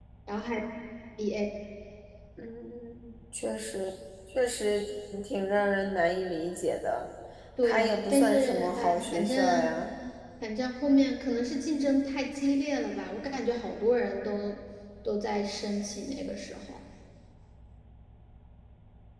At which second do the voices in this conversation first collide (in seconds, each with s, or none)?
7.6 s